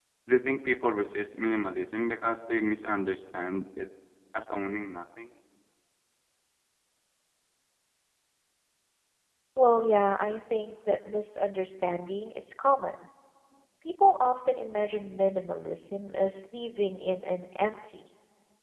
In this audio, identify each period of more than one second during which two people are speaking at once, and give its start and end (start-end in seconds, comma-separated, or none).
none